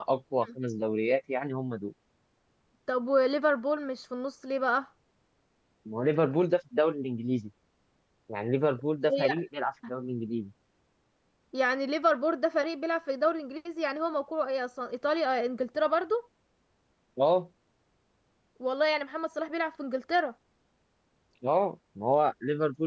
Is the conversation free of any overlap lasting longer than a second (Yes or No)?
Yes